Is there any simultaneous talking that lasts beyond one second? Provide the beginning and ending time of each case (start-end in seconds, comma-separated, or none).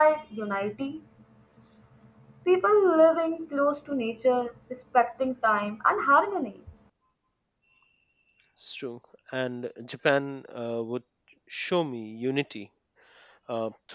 none